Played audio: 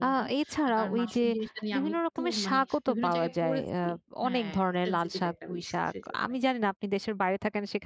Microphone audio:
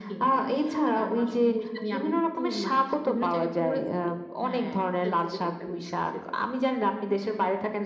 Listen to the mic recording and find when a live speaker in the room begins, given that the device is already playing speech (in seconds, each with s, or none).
none